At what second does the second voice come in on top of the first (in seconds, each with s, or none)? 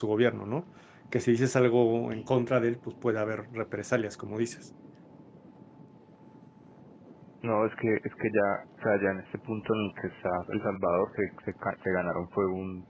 none